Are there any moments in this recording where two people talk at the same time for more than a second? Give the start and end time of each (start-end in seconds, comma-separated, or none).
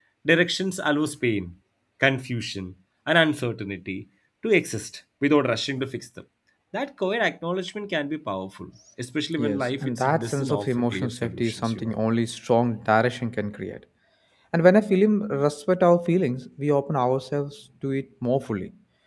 9.4-11.9